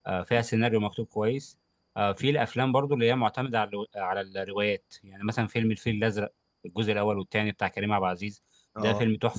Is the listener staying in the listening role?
Yes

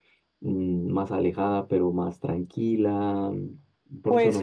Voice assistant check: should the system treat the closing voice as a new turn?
Yes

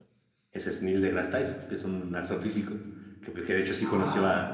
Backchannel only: Yes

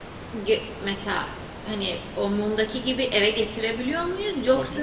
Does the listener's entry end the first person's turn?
Yes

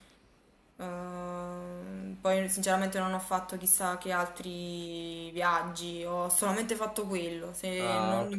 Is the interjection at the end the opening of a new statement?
No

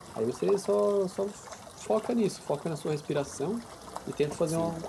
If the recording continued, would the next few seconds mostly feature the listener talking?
No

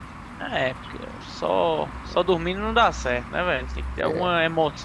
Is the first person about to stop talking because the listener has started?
No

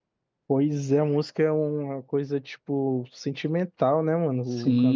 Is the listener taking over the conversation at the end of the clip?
Yes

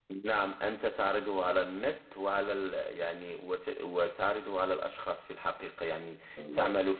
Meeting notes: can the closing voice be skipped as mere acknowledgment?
Yes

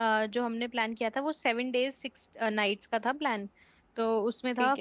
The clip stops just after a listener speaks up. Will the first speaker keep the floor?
Yes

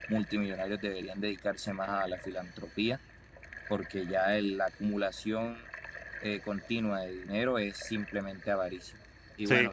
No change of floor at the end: Yes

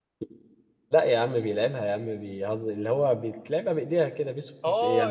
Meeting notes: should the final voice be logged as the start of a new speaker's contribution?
Yes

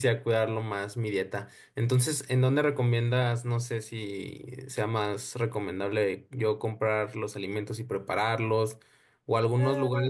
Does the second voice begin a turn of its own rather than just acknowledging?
No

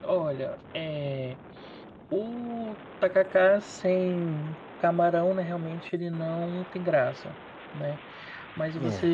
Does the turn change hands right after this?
No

